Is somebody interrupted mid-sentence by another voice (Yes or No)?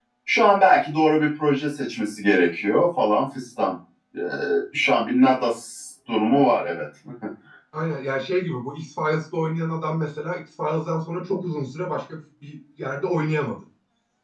No